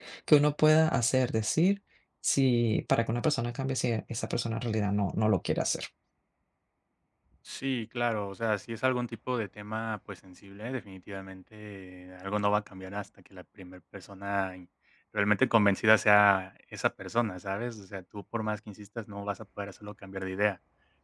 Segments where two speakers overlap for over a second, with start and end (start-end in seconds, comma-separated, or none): none